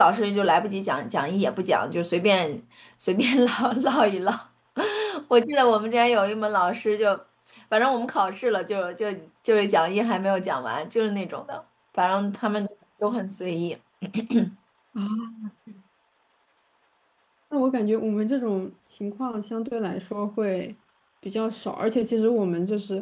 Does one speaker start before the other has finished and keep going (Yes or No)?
No